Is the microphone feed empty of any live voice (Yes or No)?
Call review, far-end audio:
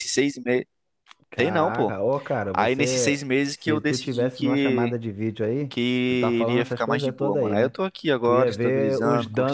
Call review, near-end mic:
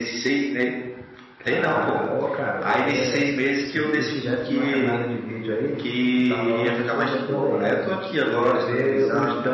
Yes